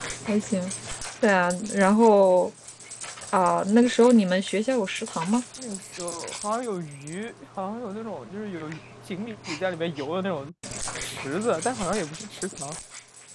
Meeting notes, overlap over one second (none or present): none